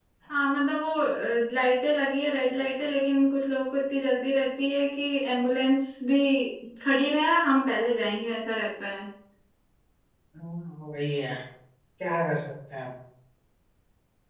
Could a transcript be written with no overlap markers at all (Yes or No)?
Yes